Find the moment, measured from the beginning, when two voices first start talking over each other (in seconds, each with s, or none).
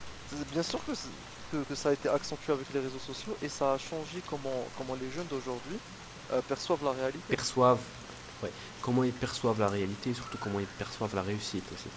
none